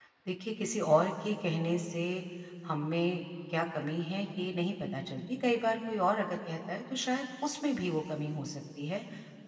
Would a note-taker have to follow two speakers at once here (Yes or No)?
No